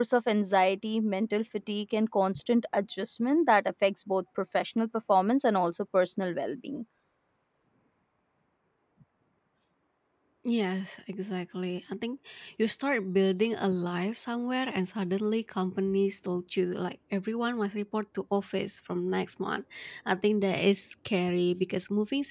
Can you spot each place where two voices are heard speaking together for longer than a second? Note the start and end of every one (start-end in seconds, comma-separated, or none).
none